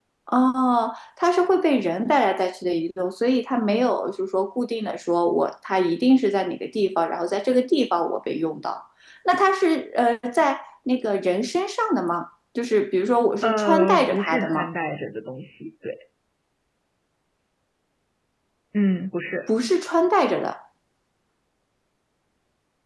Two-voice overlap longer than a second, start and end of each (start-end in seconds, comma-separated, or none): 13.4-14.7